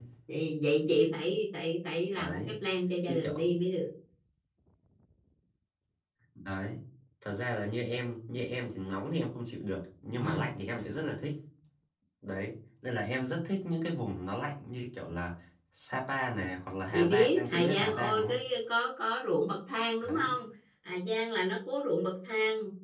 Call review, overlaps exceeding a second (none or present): present